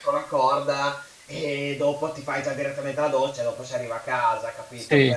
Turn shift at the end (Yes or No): Yes